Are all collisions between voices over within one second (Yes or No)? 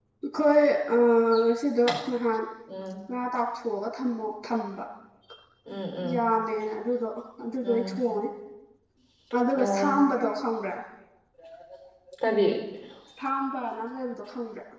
Yes